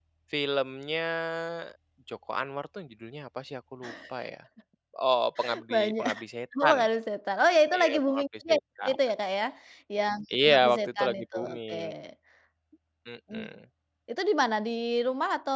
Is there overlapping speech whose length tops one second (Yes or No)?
Yes